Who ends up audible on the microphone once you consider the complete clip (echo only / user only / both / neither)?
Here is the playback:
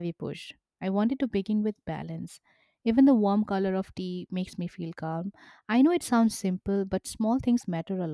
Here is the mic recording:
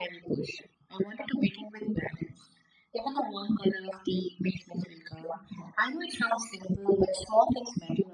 echo only